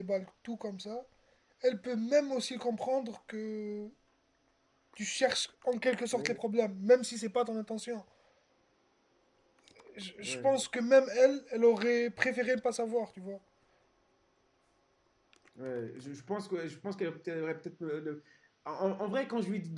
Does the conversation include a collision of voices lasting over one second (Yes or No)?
No